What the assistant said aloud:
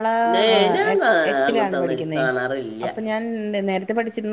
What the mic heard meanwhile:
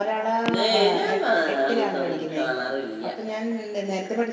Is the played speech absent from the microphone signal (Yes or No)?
No